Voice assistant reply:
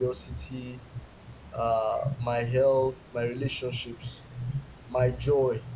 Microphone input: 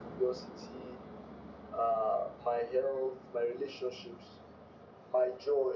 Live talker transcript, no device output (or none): none